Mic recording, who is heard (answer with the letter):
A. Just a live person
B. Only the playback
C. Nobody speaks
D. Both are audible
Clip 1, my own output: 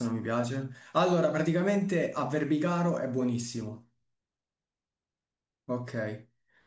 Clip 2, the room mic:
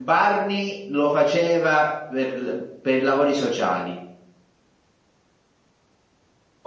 A